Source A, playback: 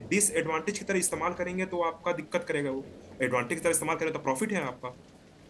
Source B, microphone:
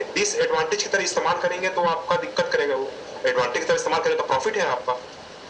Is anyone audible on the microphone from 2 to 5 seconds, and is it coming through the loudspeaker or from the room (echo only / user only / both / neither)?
echo only